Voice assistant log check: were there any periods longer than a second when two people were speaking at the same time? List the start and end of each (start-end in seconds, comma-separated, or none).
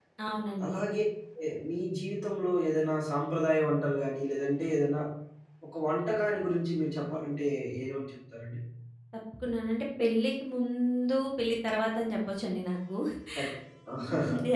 none